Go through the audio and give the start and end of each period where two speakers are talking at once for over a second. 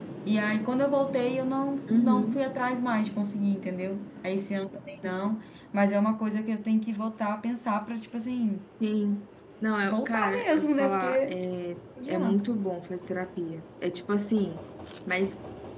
9.8-11.4

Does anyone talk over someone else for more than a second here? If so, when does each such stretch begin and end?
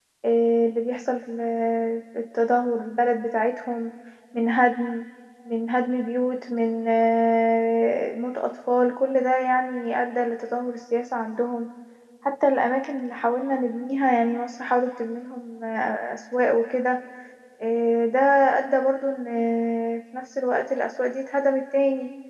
none

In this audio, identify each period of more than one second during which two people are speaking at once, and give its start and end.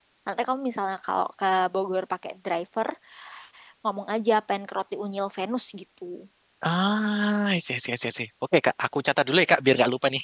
none

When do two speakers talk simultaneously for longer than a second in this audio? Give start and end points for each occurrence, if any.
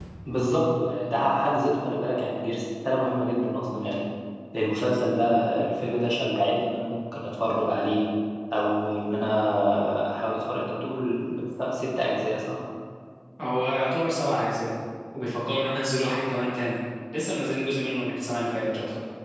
none

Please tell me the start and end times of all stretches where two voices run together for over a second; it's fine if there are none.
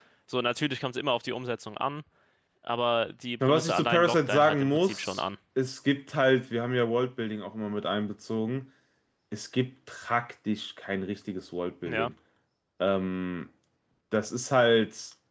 3.4-5.2

